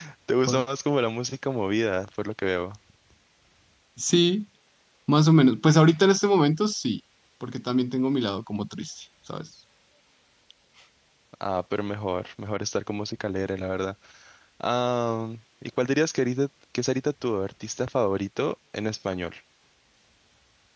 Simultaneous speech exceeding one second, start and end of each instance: none

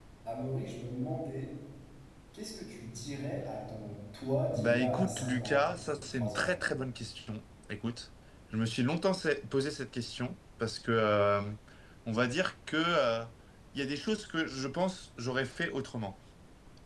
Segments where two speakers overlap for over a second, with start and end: 4.6-6.7

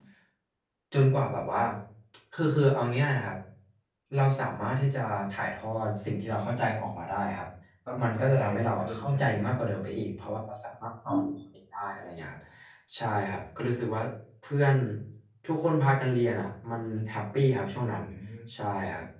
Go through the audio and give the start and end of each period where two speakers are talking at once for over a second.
8.0-9.4

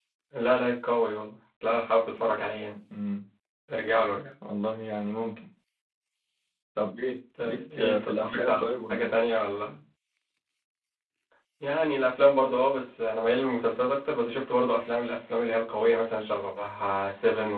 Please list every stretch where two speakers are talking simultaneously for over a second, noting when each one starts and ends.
7.4-9.1

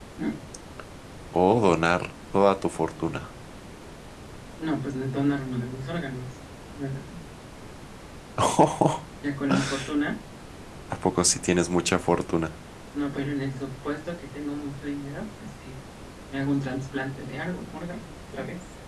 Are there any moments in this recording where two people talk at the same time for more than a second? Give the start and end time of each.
none

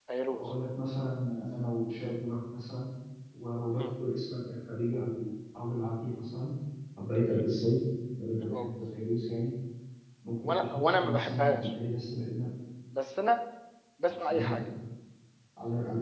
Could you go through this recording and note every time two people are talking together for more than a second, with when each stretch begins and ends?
10.5-11.7

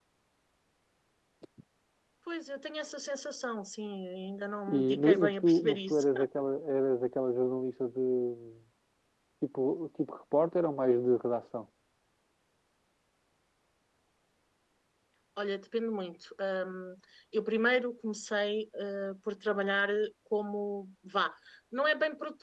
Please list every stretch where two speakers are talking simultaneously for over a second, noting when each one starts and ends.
4.7-6.0

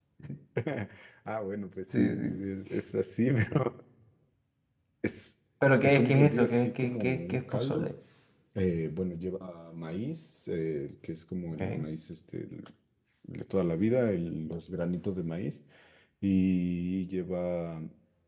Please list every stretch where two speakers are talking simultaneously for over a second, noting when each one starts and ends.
5.8-7.9

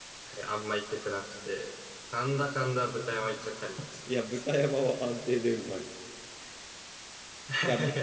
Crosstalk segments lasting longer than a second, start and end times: none

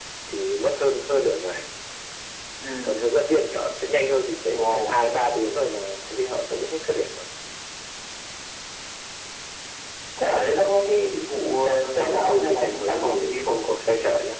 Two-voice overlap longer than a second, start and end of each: 11.6-13.6

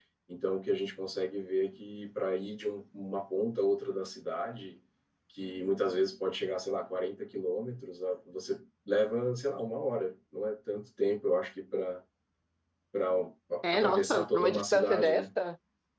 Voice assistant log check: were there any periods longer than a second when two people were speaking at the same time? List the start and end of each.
13.7-15.2

